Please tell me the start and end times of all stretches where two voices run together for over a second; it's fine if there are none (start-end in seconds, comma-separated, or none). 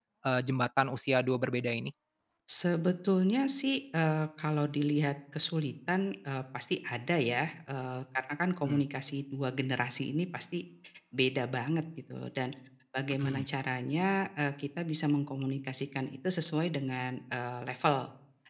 none